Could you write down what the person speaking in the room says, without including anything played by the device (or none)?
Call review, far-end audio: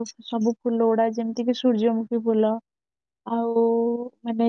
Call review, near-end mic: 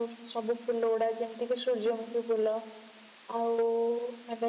none